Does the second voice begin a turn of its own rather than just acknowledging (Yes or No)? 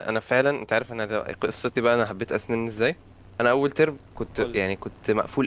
No